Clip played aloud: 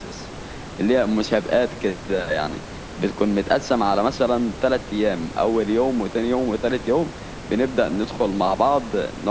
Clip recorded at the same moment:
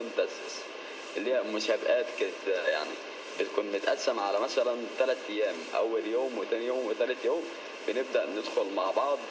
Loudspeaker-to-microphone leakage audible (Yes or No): Yes